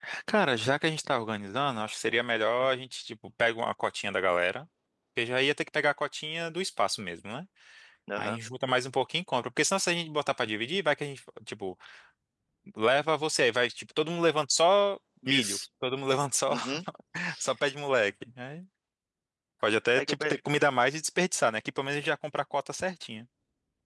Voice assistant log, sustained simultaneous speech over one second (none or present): none